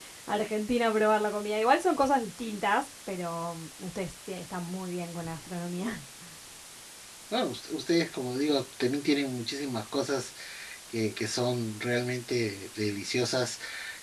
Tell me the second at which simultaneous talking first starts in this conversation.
none

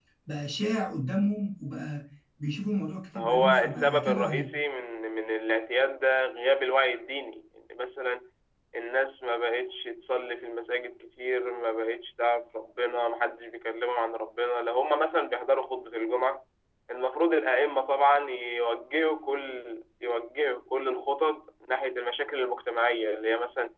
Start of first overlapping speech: 3.1 s

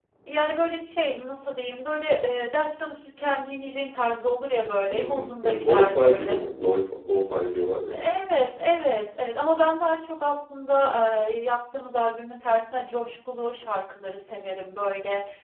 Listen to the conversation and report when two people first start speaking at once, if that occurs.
4.8 s

